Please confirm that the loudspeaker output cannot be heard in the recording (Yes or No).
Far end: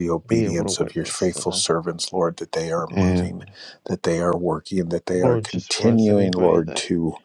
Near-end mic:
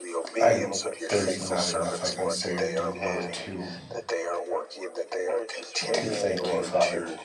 No